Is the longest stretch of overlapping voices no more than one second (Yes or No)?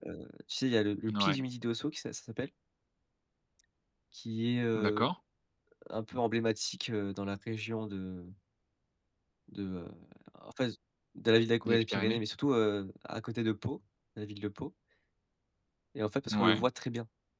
Yes